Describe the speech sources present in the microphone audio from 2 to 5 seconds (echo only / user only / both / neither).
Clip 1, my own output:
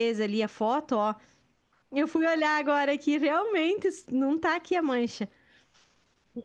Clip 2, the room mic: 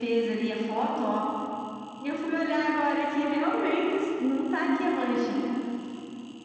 echo only